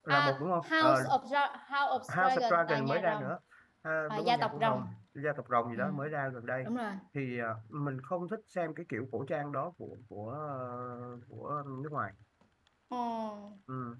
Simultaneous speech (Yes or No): Yes